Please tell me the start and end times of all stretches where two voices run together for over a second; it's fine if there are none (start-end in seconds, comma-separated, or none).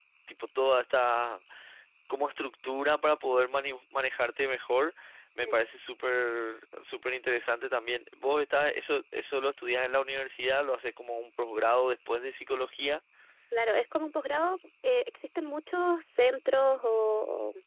none